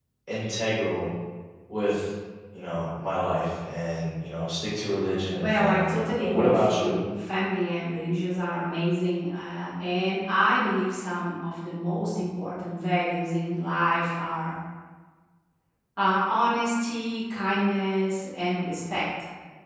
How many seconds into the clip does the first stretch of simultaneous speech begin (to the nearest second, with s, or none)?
5 s